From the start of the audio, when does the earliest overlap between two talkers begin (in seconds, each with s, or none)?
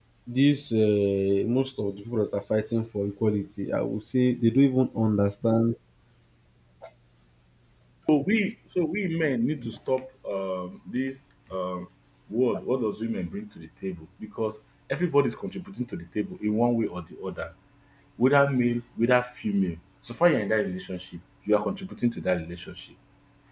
none